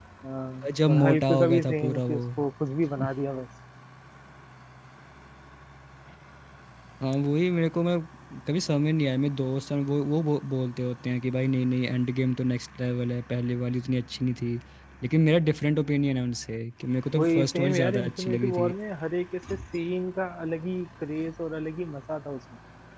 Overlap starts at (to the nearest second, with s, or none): 1 s